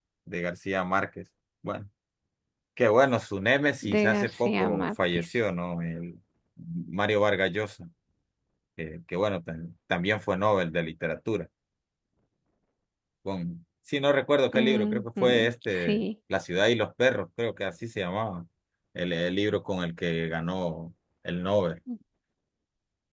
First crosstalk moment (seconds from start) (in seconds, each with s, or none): 3.8 s